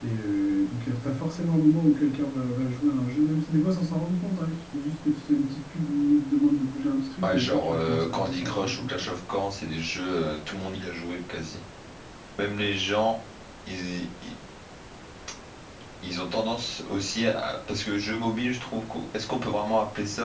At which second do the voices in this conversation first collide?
7.2 s

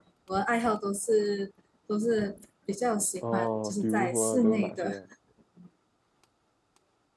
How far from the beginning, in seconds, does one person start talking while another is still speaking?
3.2 s

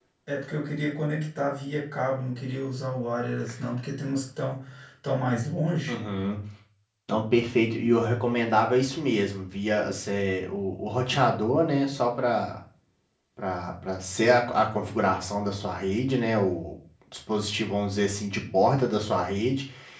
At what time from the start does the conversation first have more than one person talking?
none

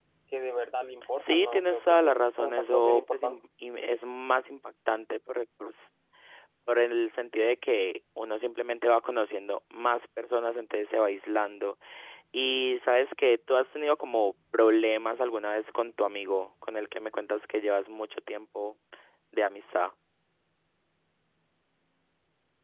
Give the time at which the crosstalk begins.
1.2 s

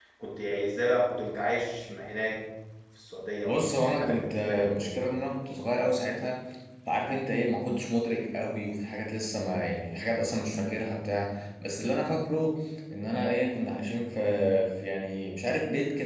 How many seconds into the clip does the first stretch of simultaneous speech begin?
3.5 s

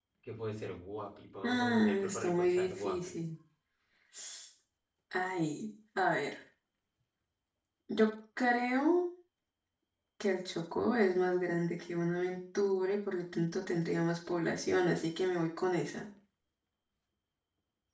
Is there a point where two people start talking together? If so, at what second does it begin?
1.4 s

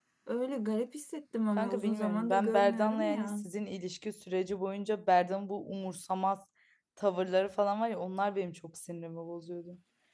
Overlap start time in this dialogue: 1.6 s

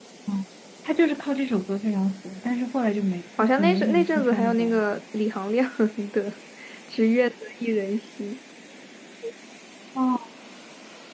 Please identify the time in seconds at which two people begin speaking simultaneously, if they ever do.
3.4 s

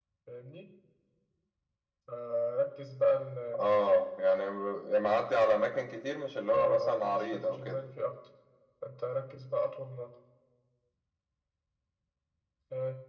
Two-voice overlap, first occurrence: 6.5 s

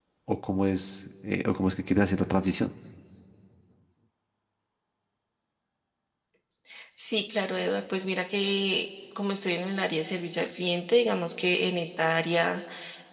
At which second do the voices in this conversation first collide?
none

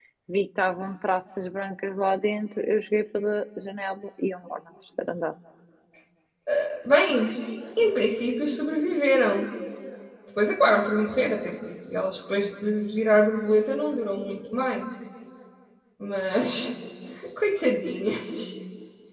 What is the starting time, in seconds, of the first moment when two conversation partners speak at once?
none

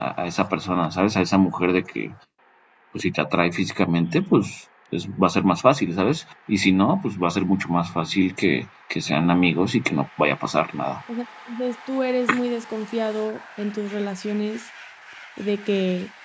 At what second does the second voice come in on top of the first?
none

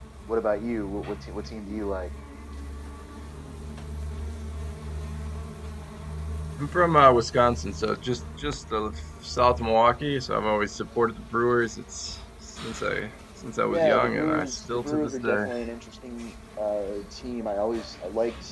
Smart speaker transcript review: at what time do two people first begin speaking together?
13.7 s

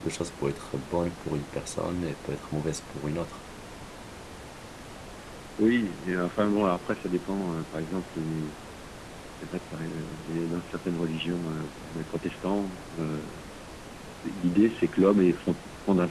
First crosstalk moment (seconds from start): none

